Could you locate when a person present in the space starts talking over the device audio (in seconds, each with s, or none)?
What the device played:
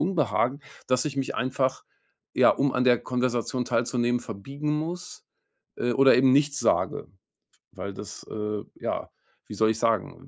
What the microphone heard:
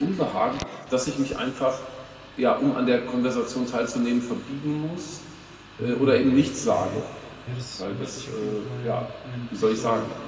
5.8 s